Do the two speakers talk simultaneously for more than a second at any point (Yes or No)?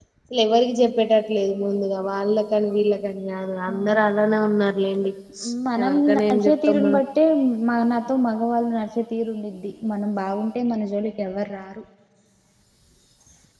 Yes